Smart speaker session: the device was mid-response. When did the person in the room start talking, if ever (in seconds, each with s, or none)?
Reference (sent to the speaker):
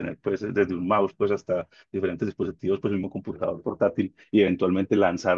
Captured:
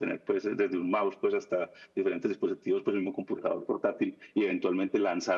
none